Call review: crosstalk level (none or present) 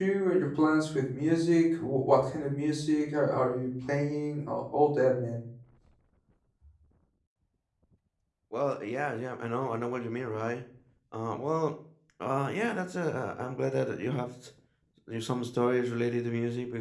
none